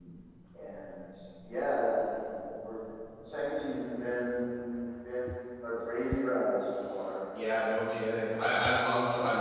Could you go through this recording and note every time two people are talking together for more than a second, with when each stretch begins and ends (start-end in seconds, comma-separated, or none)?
none